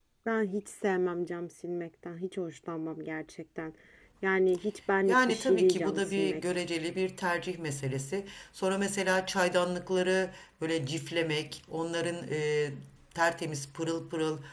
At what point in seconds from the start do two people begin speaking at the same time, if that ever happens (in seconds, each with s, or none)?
5.1 s